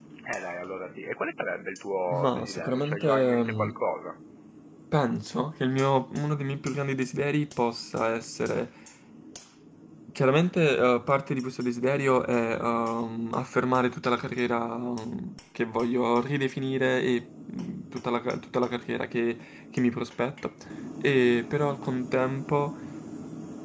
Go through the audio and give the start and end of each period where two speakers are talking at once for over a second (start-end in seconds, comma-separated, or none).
2.1-3.8